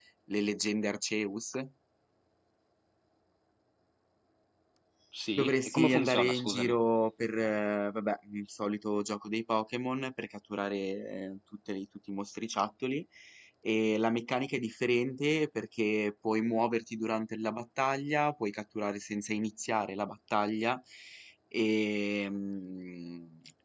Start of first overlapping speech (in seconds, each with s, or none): 5.4 s